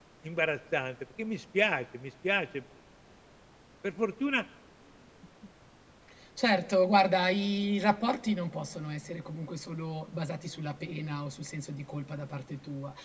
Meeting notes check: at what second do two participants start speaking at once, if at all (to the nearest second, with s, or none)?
none